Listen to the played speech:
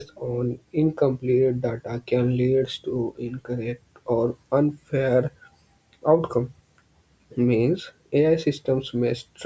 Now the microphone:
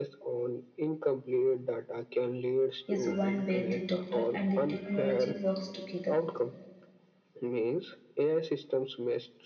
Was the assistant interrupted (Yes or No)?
Yes